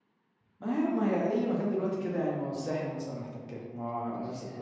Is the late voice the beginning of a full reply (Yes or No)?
Yes